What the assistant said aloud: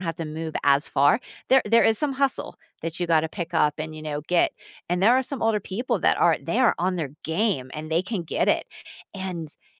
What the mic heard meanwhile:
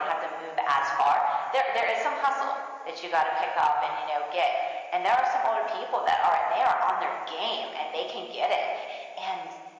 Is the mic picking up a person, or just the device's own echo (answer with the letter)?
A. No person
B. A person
A